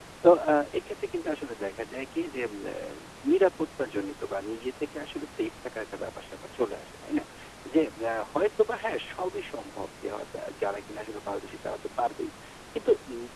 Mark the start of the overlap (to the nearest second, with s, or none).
none